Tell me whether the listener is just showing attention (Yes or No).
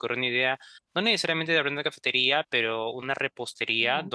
Yes